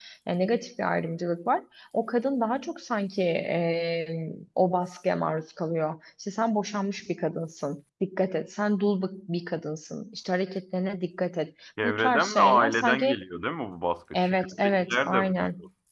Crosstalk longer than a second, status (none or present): present